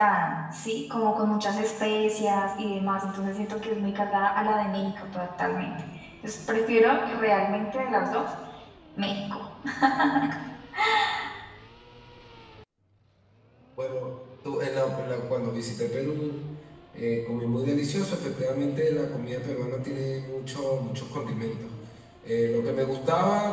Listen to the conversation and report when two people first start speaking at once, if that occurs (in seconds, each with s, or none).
none